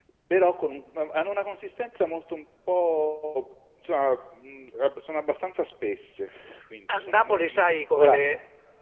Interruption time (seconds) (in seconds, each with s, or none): 6.9 s